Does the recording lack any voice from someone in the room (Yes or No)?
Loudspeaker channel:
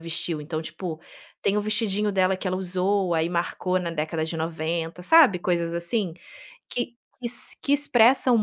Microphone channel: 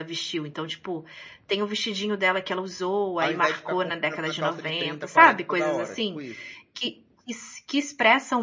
No